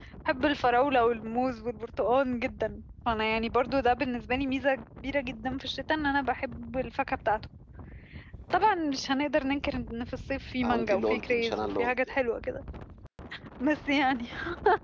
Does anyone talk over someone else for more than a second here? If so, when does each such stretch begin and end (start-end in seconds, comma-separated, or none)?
10.6-12.2